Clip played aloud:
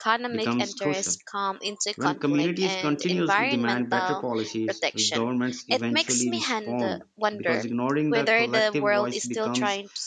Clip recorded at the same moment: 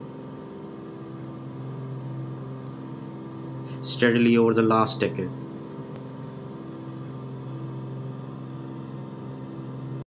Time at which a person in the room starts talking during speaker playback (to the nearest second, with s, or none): 4 s